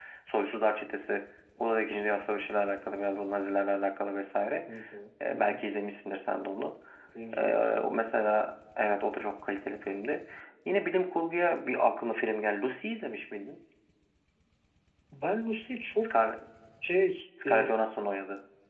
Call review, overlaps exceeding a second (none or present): none